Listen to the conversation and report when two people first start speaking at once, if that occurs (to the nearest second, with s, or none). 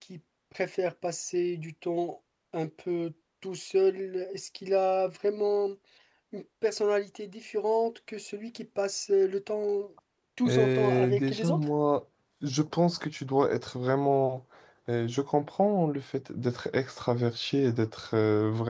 10 s